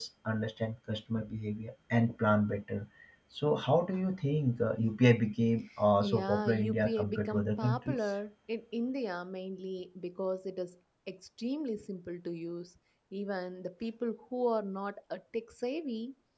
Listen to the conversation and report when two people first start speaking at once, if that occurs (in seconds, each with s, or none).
6.0 s